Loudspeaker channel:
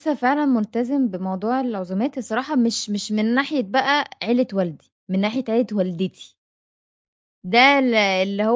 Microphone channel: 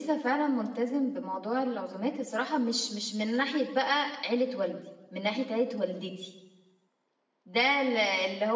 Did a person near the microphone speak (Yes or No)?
No